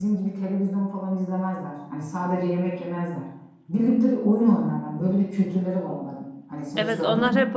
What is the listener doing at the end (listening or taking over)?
taking over